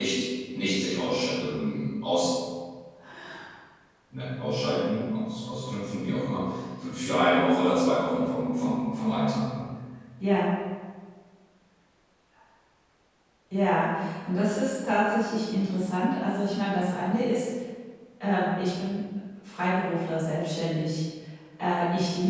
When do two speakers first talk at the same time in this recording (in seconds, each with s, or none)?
none